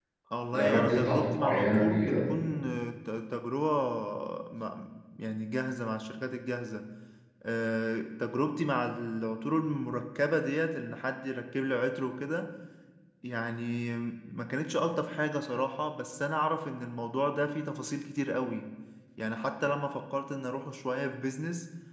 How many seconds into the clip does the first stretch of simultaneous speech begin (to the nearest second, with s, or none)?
1 s